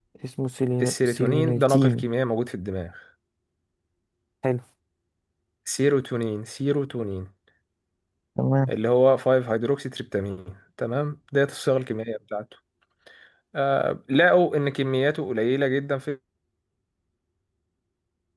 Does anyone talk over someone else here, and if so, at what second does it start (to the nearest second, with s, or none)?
1 s